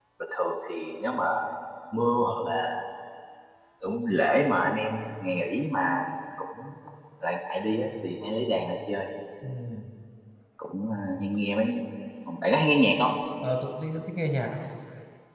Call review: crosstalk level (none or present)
none